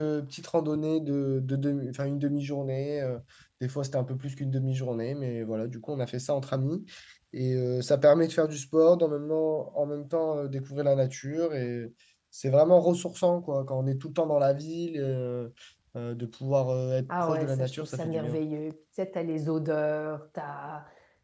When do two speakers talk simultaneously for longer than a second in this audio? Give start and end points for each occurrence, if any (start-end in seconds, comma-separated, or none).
17.1-18.4